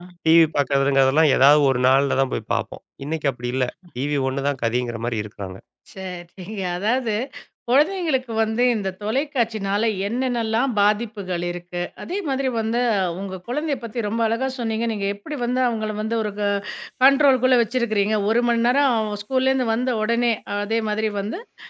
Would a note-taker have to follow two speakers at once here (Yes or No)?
No